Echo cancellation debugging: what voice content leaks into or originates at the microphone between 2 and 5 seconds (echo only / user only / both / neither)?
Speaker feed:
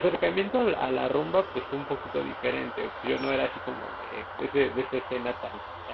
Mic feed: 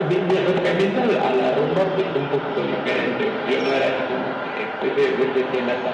echo only